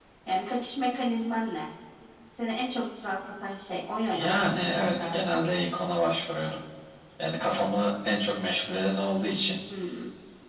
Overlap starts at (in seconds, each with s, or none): 4.1 s